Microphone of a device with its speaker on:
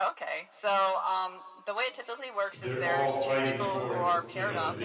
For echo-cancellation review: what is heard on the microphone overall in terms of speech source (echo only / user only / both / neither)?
both